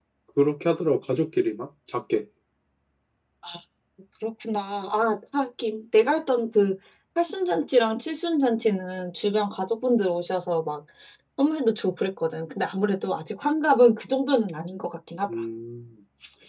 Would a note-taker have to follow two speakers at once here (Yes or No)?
No